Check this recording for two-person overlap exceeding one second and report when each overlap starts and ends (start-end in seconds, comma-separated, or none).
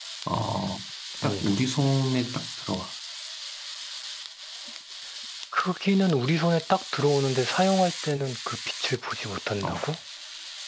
none